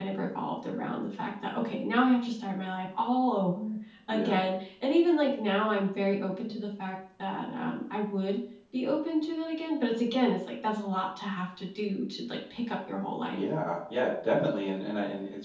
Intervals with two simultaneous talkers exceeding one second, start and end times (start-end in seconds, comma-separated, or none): none